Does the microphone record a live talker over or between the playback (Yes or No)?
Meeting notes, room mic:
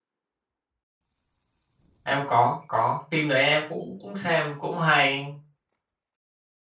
Yes